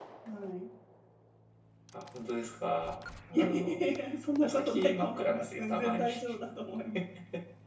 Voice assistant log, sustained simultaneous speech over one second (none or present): present